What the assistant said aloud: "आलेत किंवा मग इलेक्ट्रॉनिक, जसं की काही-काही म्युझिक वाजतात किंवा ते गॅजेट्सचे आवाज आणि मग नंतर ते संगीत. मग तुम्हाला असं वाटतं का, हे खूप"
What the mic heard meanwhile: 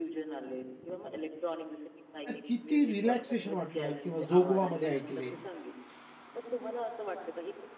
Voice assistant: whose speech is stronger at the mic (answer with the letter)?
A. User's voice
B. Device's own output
A